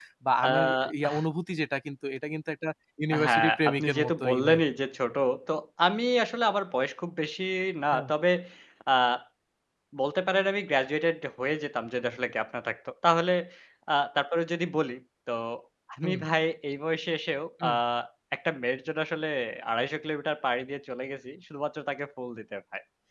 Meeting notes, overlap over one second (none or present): present